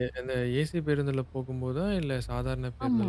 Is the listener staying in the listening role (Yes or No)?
No